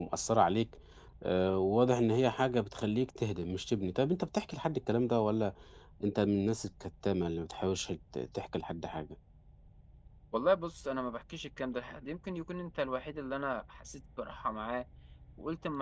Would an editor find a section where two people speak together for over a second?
No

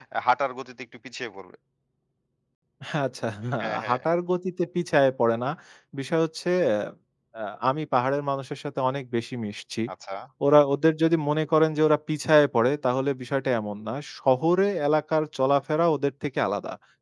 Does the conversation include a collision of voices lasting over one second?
No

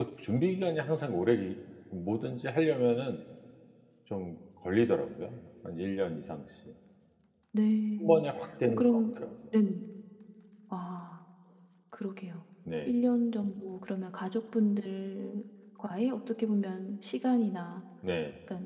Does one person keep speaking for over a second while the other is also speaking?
No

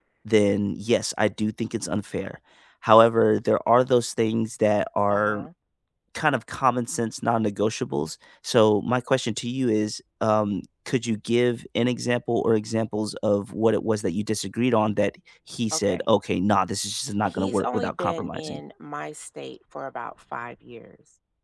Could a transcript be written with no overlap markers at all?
No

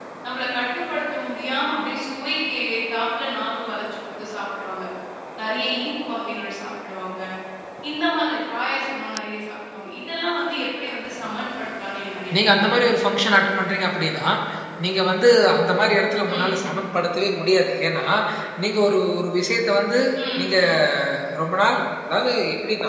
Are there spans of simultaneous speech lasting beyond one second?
No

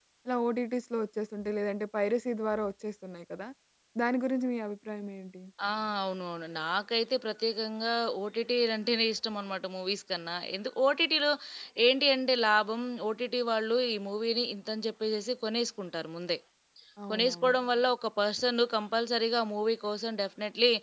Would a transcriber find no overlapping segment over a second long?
Yes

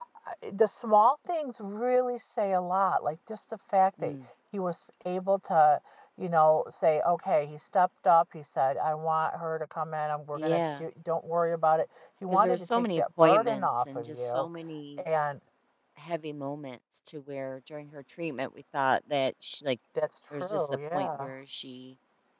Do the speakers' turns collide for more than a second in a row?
Yes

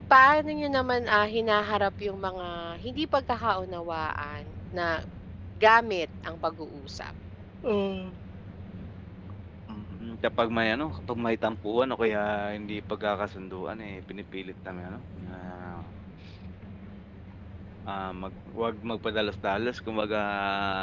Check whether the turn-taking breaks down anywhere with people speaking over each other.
No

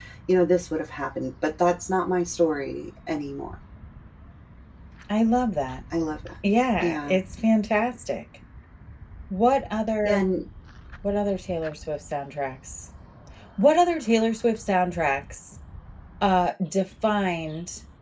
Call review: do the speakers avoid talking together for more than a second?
Yes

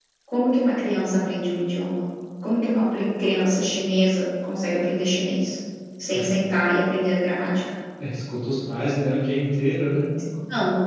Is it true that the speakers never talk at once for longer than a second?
Yes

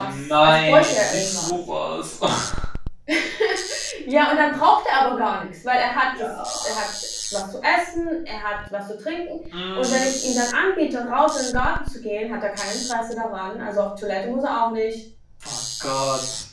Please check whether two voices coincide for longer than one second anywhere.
Yes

